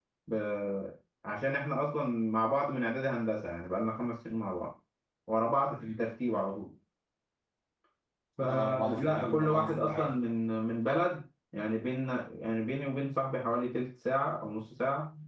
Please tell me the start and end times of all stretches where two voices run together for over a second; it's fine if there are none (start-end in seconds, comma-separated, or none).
8.4-10.1